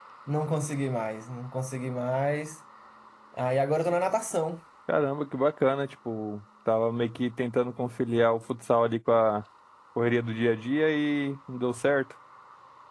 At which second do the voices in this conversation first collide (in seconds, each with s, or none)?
none